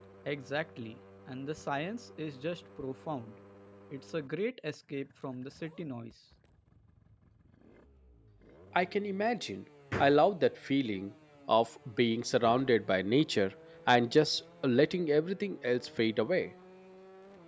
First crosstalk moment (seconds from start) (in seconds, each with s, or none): none